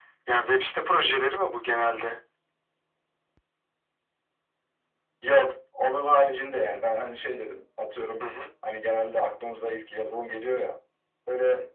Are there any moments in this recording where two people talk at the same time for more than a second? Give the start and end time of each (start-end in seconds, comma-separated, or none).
none